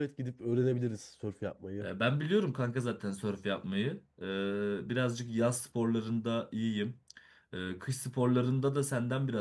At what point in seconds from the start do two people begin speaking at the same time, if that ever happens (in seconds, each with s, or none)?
none